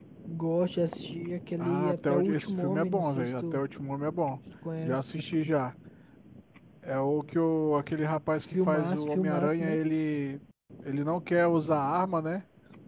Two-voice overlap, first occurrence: 1.6 s

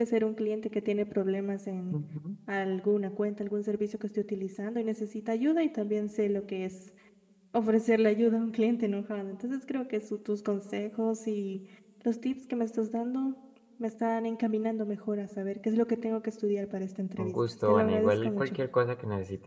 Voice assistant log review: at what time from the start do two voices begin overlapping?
17.2 s

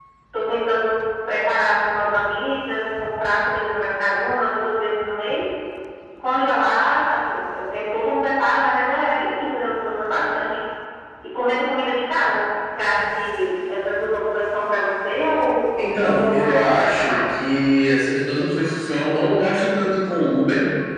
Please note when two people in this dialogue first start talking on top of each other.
15.8 s

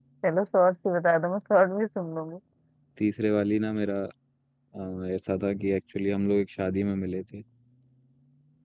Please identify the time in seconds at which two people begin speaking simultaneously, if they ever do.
none

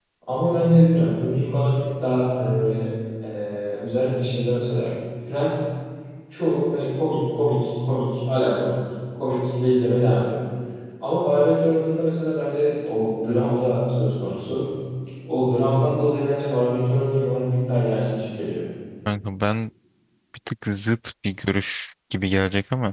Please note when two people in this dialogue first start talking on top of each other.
none

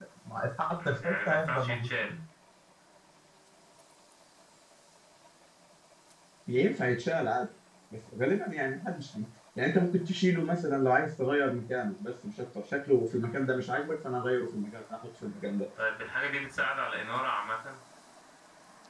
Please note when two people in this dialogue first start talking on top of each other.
0.8 s

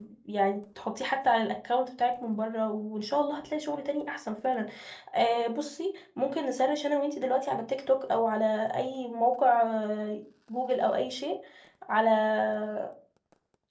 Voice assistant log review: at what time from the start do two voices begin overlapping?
none

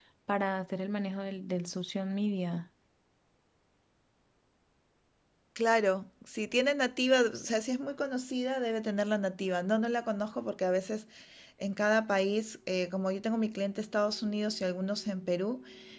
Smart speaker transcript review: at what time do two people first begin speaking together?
none

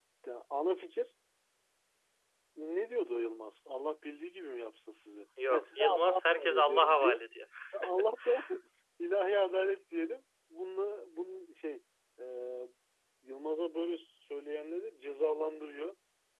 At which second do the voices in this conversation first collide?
5.4 s

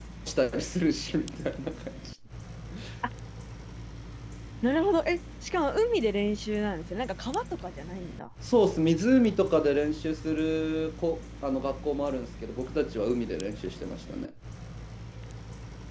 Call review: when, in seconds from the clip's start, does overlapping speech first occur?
none

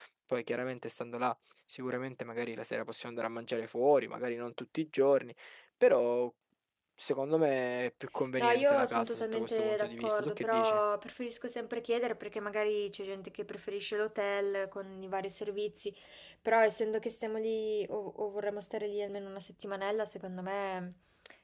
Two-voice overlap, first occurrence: 8.4 s

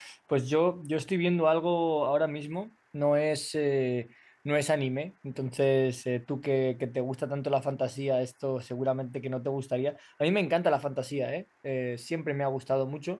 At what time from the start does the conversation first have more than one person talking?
none

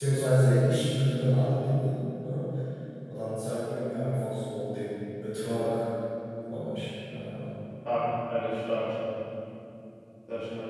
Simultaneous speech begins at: none

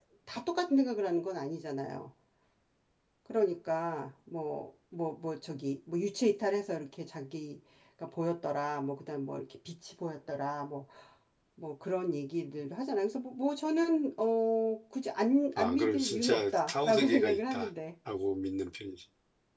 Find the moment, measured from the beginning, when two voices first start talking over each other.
15.6 s

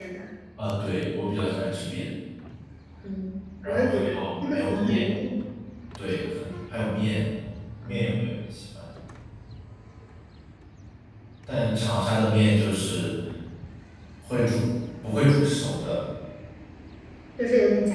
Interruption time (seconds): 3.7 s

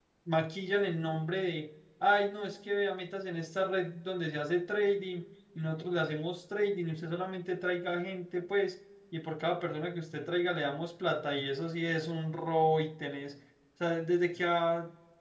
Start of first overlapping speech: none

